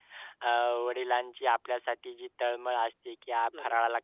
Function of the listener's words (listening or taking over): listening